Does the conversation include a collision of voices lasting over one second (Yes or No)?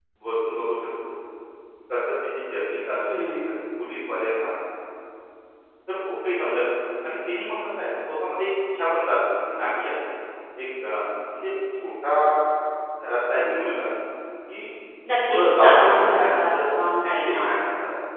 Yes